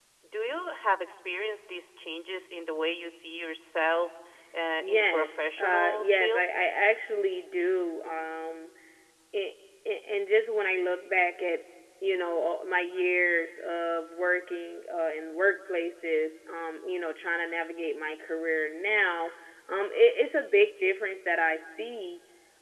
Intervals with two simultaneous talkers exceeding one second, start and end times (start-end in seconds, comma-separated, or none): 4.8-6.4